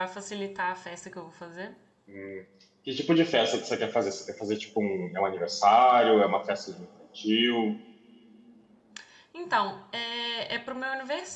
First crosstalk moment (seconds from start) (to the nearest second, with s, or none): none